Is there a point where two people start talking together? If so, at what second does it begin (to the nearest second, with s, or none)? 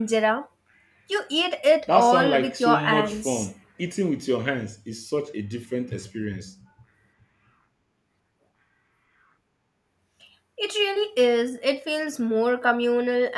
2 s